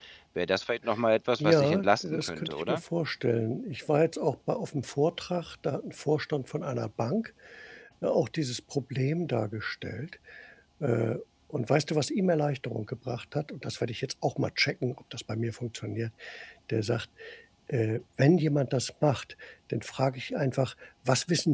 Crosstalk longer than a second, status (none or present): present